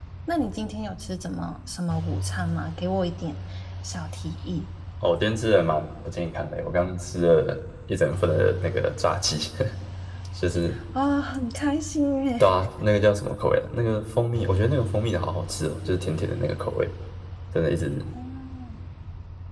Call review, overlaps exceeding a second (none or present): none